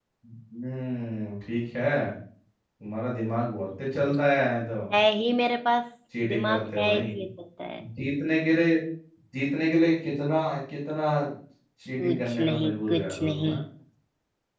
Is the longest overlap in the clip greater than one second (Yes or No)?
Yes